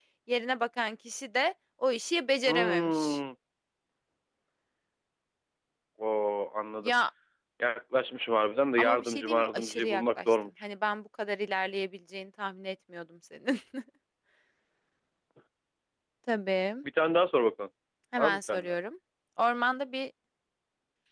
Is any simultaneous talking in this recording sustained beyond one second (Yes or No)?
Yes